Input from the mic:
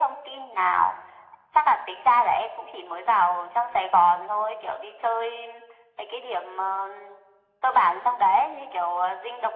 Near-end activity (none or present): none